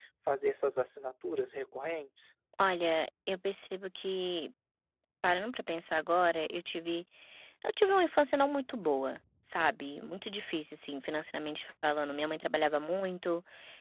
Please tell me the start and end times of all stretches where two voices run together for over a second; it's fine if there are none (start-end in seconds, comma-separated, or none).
none